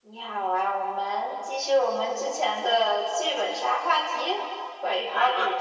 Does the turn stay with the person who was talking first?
No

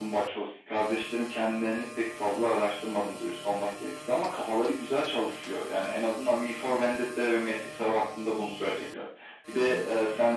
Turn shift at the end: No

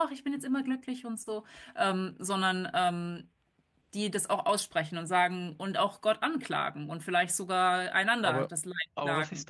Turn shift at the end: Yes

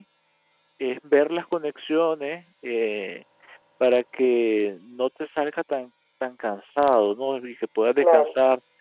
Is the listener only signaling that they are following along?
Yes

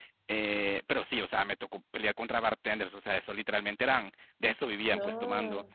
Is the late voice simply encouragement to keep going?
Yes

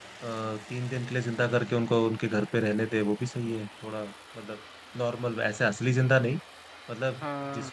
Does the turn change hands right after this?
No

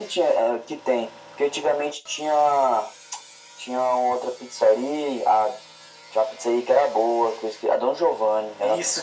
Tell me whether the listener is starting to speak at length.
Yes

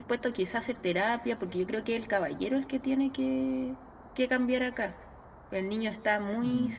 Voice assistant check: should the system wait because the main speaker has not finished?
Yes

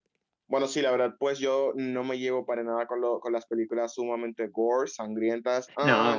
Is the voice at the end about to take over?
No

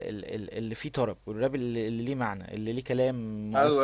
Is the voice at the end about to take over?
Yes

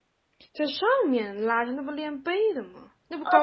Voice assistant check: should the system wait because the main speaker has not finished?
No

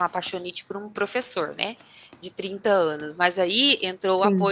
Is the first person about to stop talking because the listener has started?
No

